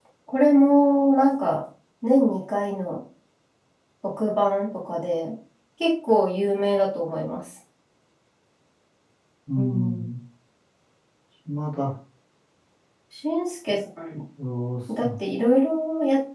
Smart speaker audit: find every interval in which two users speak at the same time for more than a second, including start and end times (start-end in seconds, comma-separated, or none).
none